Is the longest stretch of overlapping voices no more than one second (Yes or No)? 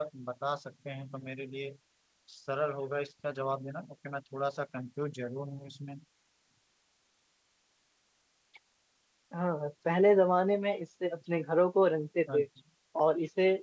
Yes